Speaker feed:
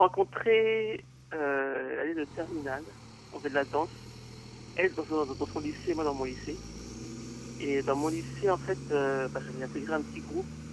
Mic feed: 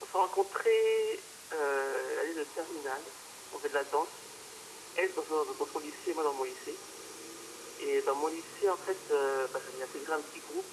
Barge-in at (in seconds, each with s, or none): none